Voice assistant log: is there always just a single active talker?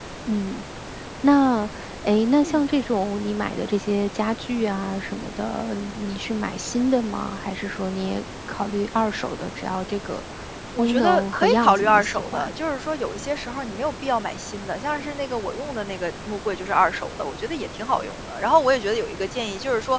No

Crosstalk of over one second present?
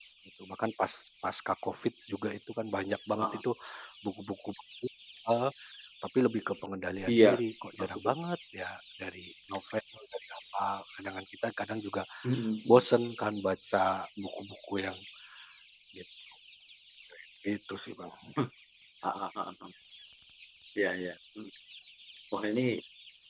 No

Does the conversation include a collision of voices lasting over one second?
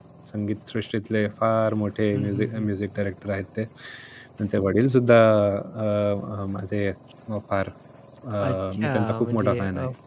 Yes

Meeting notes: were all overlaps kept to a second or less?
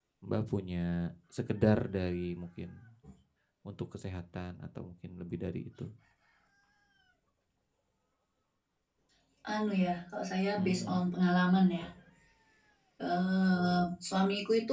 Yes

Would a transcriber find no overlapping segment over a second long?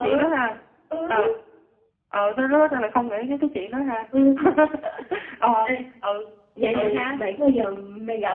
Yes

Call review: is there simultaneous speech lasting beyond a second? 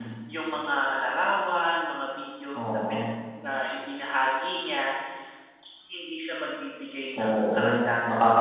Yes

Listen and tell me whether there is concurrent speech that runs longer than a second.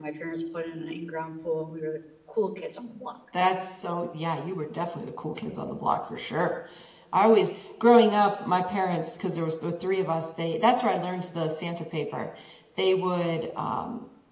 No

